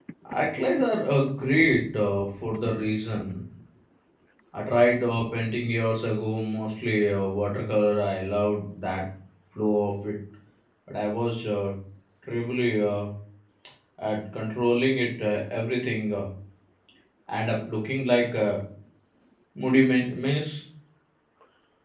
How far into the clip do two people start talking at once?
none

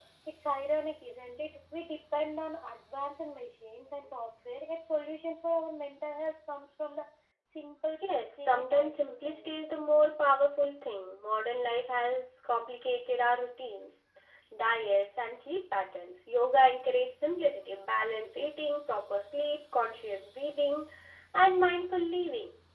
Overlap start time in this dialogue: 8.0 s

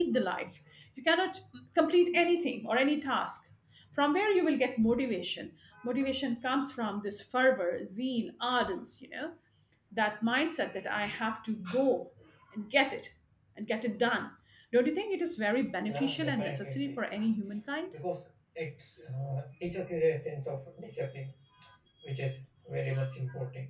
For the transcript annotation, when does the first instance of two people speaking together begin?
15.8 s

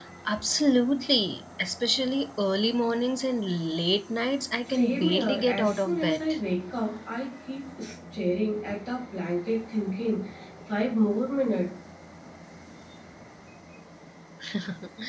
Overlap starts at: 4.7 s

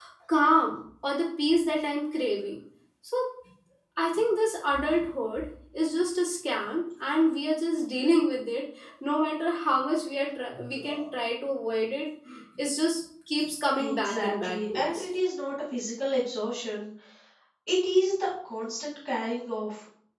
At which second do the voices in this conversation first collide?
13.8 s

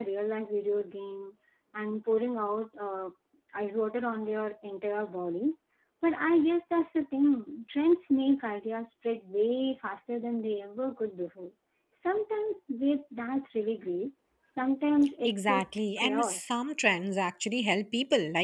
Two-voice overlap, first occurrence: 15.2 s

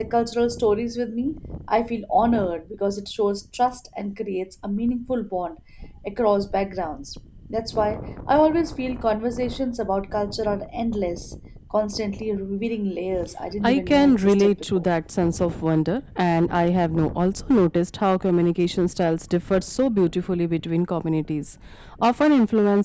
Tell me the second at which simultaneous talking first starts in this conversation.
13.6 s

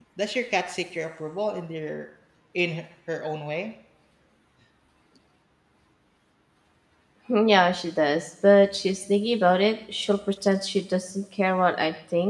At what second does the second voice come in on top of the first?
none

